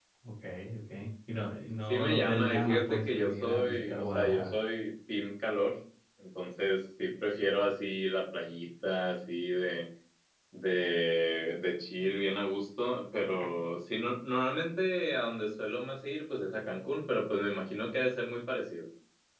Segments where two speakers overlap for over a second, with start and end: 1.9-4.5

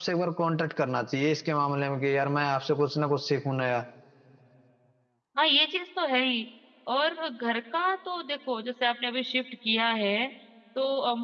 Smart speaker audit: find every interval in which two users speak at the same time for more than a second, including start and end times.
none

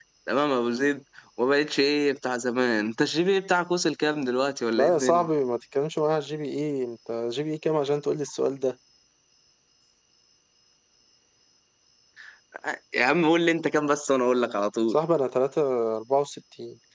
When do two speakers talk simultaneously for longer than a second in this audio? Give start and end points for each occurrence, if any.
none

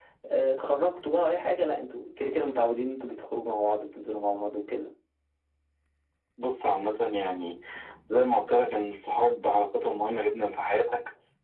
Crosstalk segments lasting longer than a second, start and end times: none

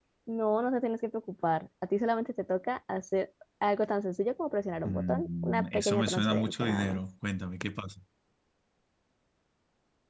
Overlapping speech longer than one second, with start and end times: 4.8-7.0

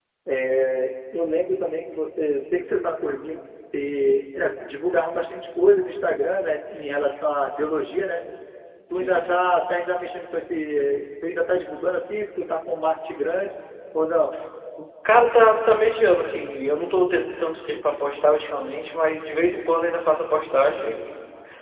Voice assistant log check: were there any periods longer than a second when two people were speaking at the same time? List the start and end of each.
none

